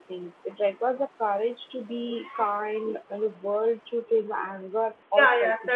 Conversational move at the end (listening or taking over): taking over